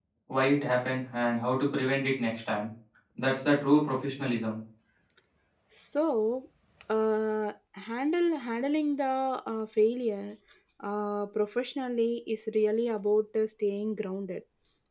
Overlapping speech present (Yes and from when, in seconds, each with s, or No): No